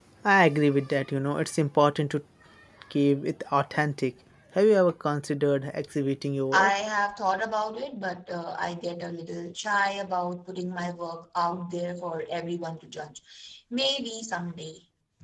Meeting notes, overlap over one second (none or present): none